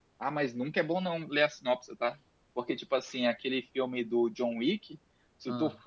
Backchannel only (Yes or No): Yes